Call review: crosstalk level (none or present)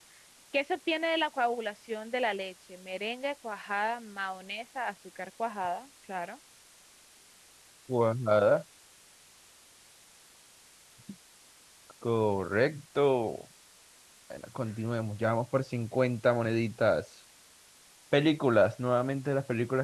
none